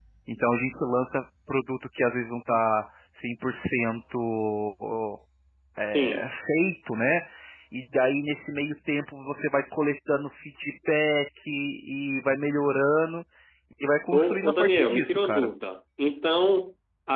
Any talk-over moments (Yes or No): Yes